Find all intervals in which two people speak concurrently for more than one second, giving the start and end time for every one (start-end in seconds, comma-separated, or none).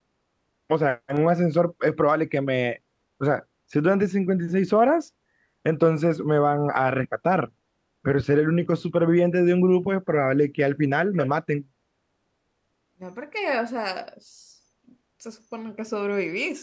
none